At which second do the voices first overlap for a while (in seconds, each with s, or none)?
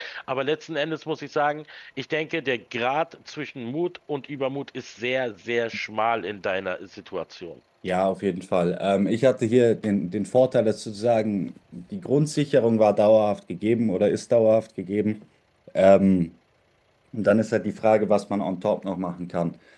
none